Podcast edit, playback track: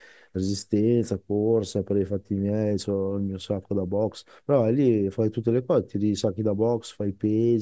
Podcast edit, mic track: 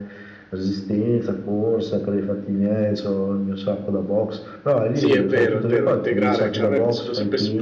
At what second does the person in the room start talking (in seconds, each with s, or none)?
4.9 s